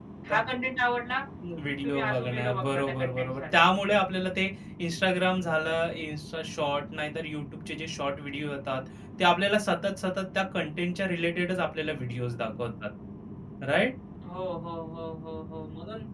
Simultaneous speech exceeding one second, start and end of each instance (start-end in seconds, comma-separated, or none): 1.8-3.4